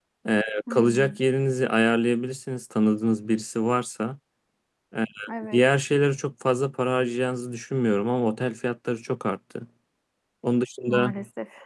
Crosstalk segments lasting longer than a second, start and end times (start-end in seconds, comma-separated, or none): none